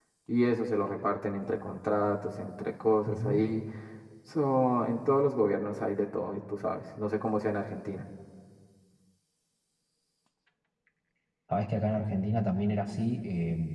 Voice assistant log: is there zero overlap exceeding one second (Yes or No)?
Yes